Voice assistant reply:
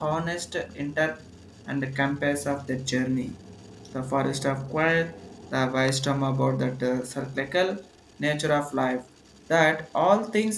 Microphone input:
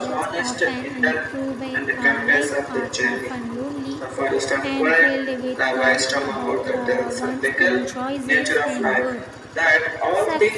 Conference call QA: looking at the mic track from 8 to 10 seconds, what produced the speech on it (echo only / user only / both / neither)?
both